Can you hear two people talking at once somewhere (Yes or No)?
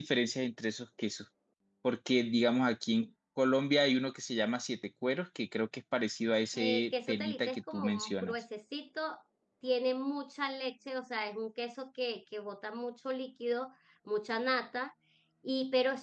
Yes